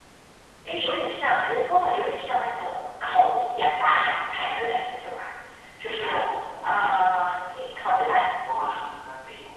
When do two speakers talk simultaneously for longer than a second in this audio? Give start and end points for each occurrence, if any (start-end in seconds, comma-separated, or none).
none